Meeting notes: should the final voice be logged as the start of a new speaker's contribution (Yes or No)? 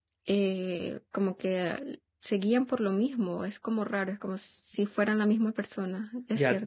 Yes